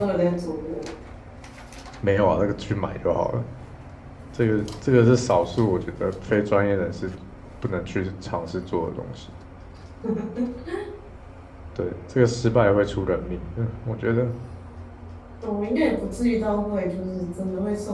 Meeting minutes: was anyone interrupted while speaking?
No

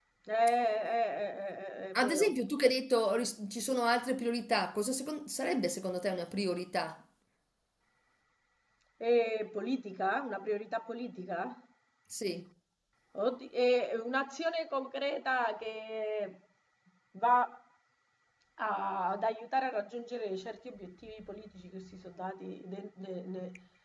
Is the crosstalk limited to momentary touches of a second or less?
Yes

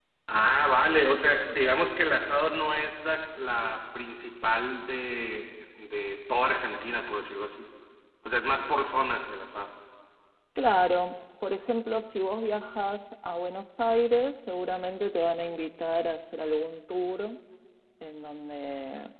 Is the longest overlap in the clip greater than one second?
No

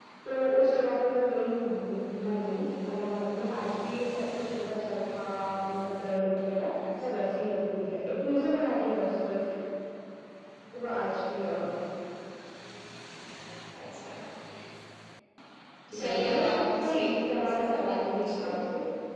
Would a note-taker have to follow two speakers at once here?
Yes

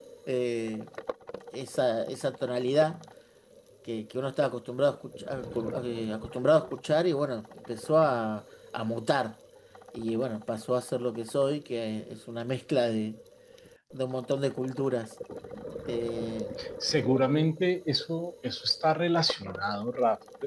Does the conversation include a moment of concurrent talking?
No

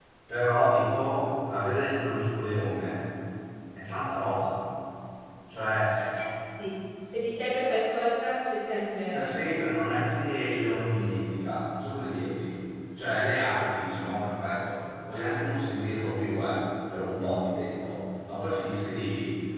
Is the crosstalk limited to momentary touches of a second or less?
Yes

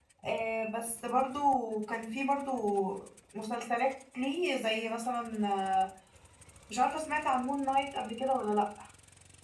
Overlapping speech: No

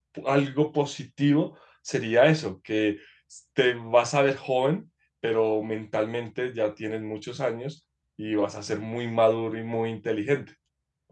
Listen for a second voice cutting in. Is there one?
No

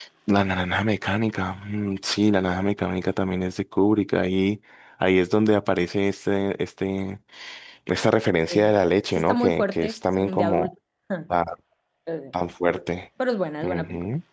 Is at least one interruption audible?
Yes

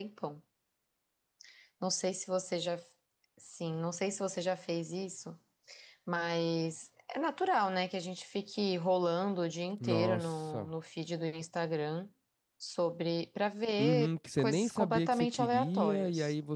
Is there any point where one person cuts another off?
Yes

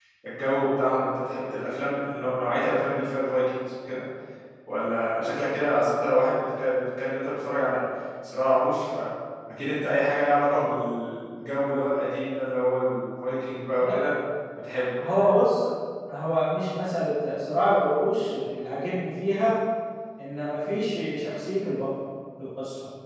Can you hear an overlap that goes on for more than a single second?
No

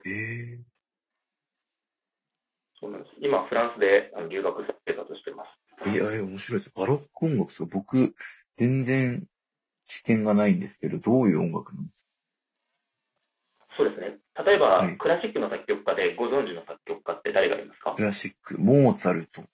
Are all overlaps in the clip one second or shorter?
Yes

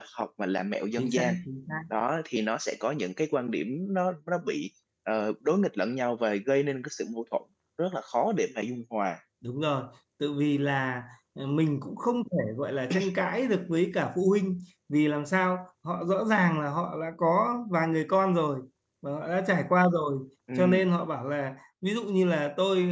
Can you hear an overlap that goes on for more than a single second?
No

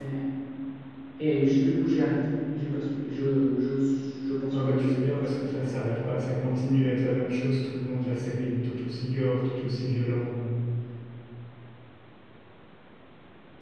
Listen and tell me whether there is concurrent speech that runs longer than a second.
Yes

